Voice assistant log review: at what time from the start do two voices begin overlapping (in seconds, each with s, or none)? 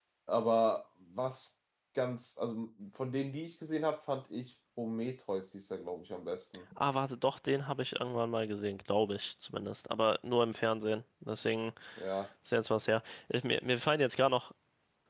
none